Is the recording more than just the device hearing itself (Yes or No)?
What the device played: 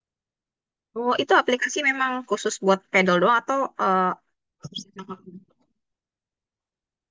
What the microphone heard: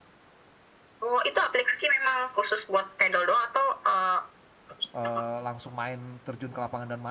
Yes